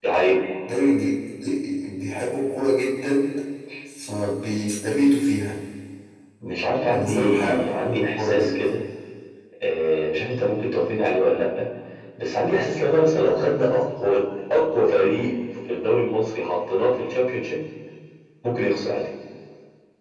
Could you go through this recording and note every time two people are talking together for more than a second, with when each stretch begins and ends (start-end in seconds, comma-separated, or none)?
6.9-8.5